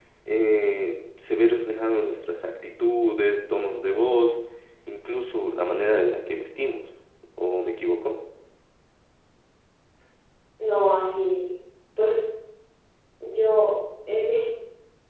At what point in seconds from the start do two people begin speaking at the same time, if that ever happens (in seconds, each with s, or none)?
none